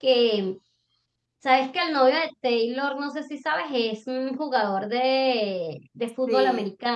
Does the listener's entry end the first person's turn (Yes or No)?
No